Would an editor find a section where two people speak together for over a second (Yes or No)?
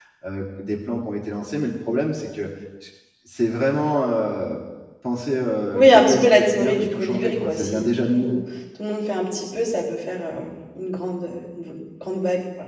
Yes